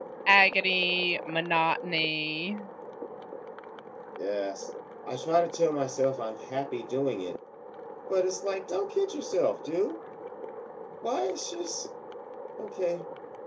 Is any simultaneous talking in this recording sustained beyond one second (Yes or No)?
No